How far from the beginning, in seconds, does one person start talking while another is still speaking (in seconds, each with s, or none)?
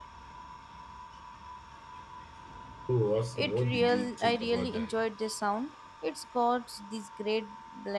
3.4 s